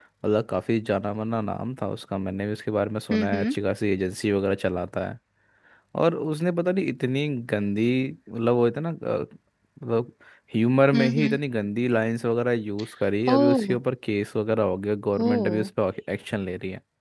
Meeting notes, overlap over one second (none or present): none